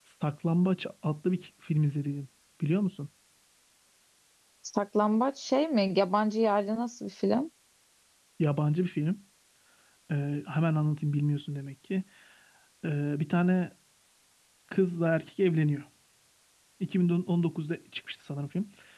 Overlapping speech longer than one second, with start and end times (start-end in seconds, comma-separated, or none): none